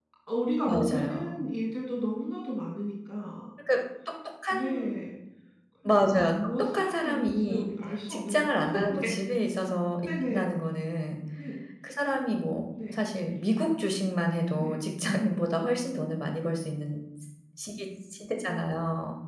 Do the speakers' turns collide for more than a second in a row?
Yes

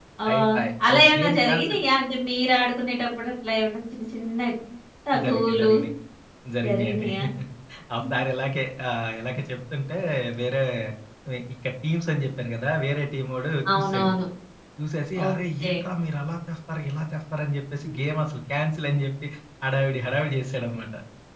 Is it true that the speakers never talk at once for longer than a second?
No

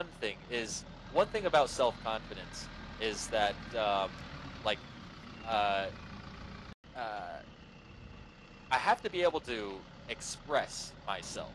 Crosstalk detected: No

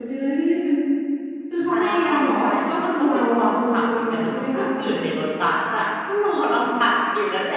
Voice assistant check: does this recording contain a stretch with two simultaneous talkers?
Yes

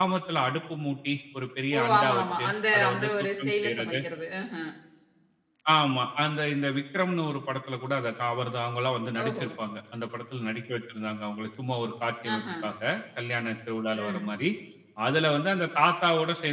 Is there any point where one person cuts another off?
Yes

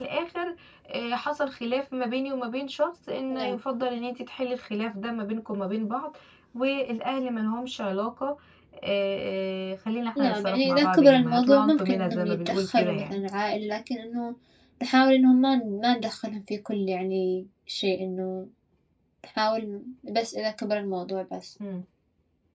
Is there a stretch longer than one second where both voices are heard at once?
Yes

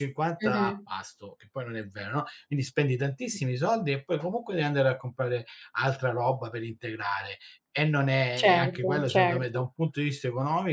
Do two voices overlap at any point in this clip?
Yes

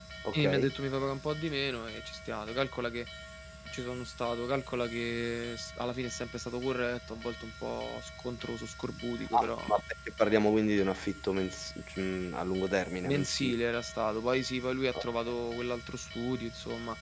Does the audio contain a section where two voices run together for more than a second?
No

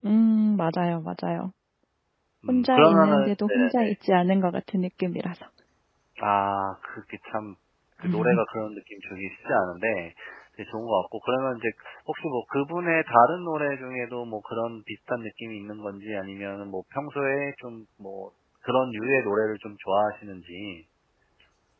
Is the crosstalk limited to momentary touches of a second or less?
No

